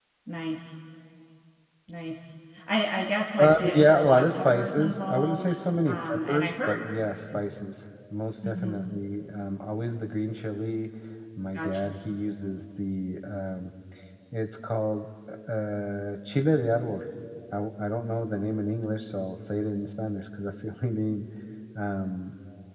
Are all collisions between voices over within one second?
No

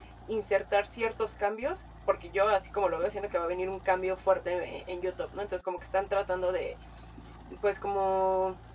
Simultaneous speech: No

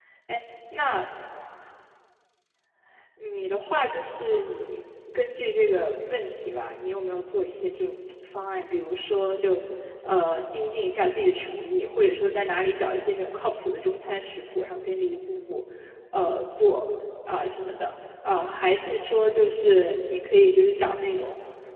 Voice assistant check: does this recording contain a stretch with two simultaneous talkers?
No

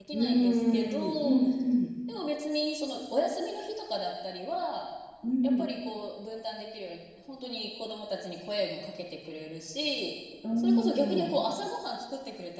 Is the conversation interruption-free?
No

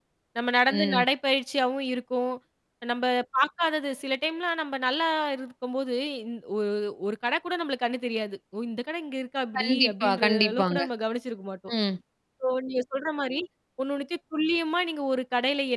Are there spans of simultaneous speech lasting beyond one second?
Yes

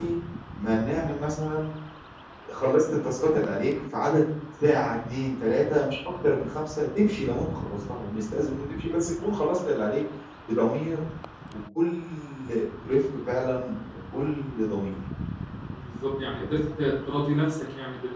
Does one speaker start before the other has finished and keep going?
No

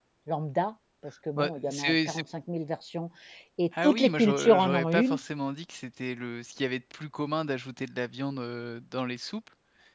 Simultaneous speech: Yes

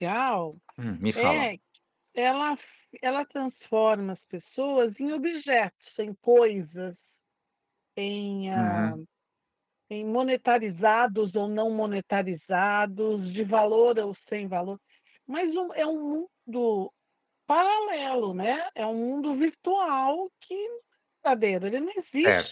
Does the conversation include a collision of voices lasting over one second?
No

